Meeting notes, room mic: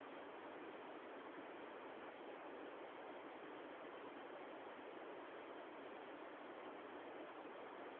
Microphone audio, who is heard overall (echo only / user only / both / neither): neither